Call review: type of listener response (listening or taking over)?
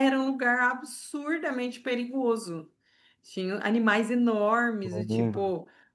listening